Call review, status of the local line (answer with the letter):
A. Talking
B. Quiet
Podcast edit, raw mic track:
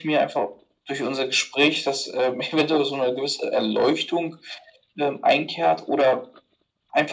B